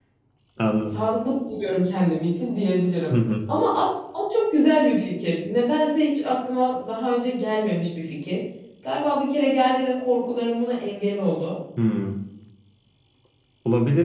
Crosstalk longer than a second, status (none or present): none